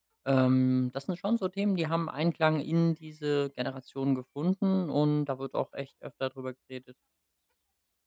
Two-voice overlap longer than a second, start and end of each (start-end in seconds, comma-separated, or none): none